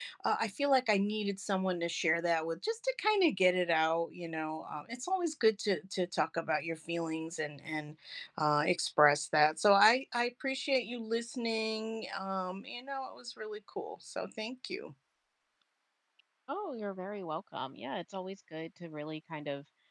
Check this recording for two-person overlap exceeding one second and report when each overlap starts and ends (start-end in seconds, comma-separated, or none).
none